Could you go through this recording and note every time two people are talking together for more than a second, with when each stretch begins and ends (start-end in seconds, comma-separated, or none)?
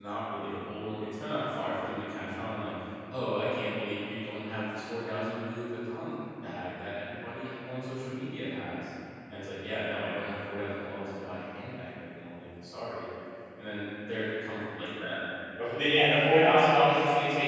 none